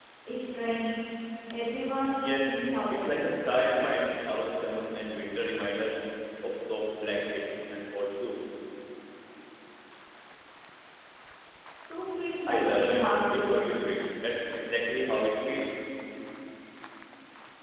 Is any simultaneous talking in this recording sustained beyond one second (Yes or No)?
Yes